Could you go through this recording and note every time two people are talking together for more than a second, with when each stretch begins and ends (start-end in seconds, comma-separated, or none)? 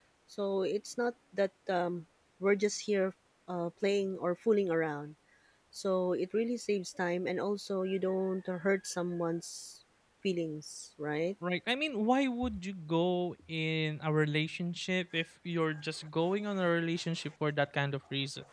none